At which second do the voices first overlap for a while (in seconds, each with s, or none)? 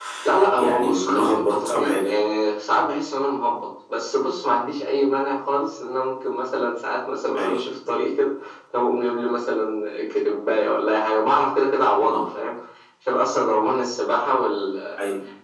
0.6 s